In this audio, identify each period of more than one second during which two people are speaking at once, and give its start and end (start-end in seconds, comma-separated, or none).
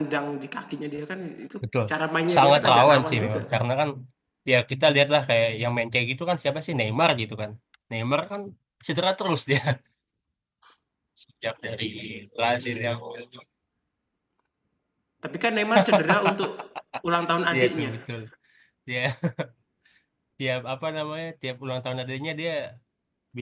2.4-3.6